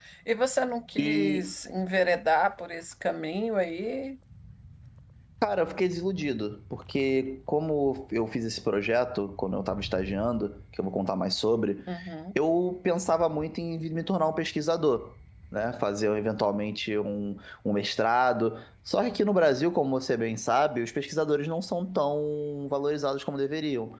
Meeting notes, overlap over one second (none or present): none